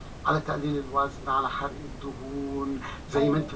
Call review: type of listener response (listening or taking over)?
listening